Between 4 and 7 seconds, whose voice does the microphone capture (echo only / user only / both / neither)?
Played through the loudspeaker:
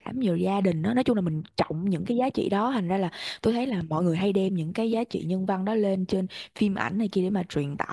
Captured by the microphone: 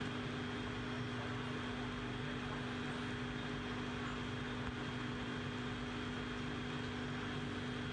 neither